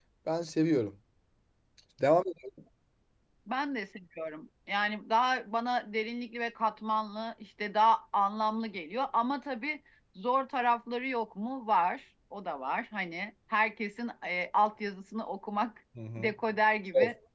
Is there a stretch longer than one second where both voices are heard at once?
No

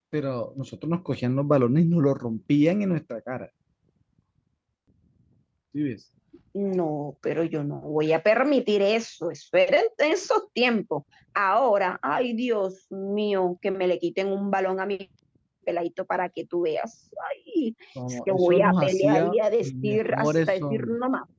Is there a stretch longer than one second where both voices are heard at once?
Yes, from 18.0 s

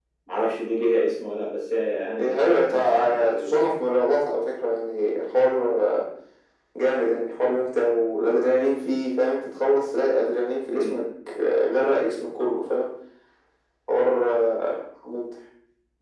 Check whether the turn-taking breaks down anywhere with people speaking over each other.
Yes, from 2.2 s

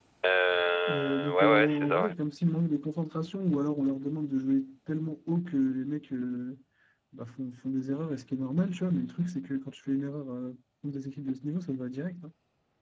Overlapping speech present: Yes, from 0.9 s

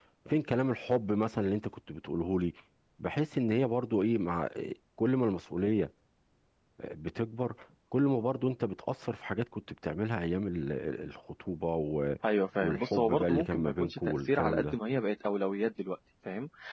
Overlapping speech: Yes, from 12.6 s

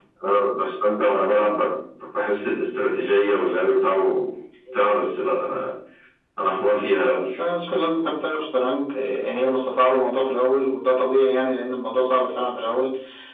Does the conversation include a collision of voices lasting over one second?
No

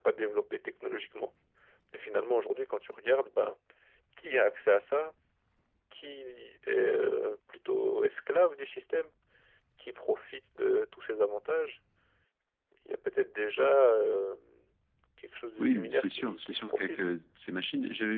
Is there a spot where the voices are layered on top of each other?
Yes, from 15.6 s

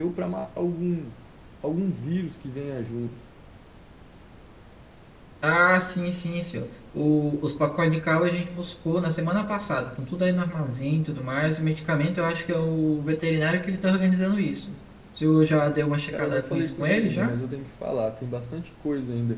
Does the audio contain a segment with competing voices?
Yes, from 16.1 s

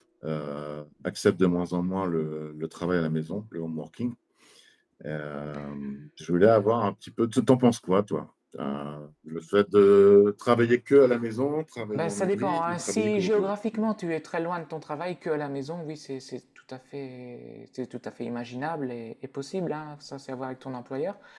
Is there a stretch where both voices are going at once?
Yes, from 11.9 s

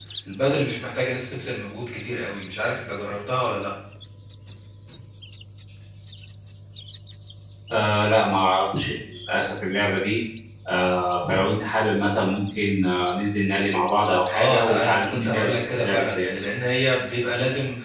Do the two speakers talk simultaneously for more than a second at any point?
Yes, from 14.3 s

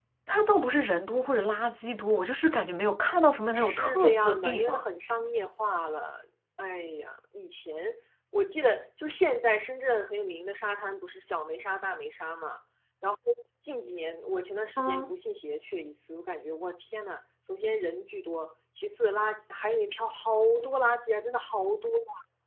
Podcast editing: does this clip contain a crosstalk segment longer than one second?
Yes, from 3.6 s

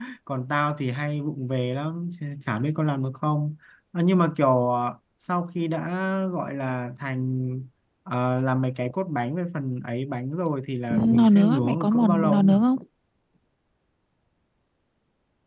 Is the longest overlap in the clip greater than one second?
Yes, from 11.2 s

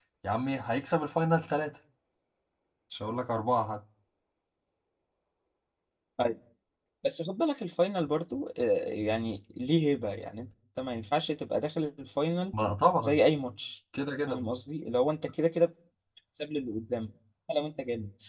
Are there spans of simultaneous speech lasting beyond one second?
No

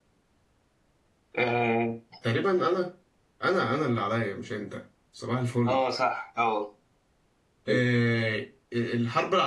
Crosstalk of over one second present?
No

